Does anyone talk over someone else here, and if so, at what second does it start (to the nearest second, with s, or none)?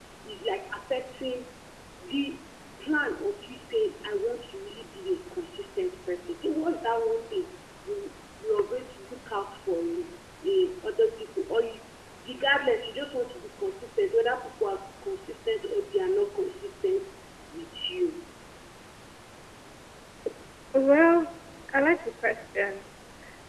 none